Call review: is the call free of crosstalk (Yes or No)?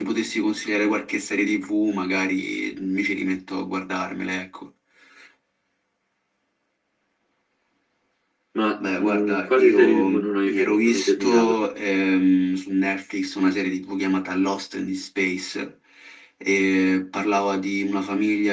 No